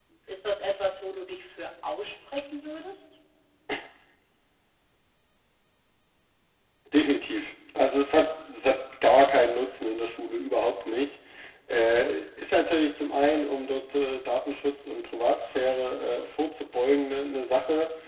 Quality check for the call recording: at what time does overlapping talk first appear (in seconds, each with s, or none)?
none